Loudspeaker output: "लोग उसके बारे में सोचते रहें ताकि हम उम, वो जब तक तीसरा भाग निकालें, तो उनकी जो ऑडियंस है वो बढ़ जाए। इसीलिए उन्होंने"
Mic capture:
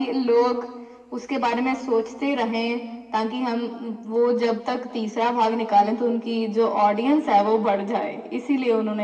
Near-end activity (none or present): none